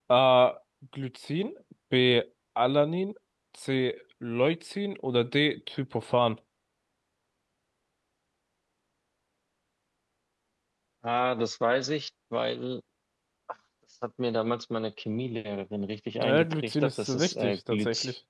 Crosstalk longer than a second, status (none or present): present